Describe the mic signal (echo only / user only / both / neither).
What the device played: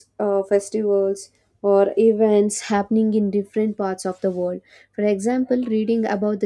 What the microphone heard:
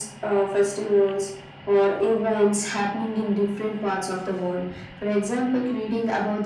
echo only